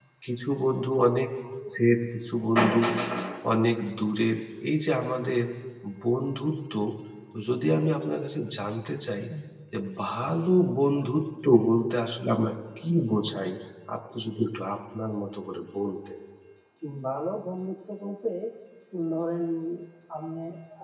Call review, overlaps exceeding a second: none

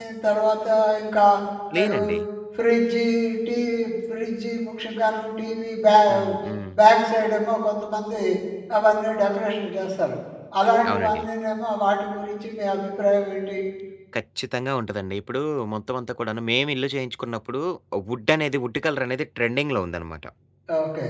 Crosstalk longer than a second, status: none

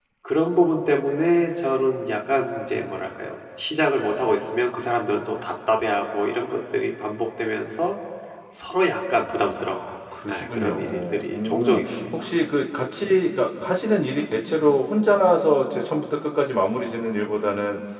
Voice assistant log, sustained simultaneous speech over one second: present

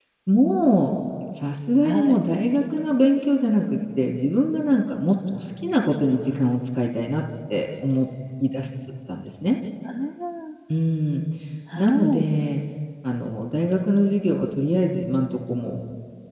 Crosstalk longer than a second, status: none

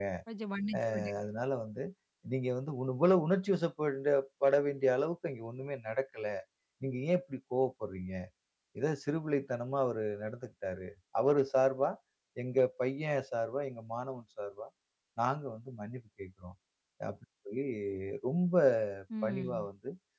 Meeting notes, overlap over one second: none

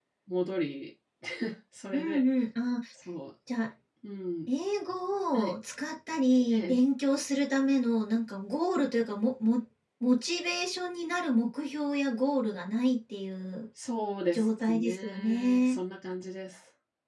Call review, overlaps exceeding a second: present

